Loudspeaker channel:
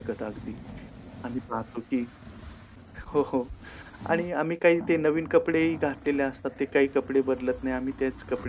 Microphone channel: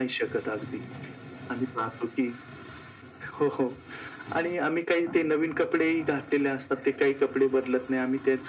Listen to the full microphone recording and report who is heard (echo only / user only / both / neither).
echo only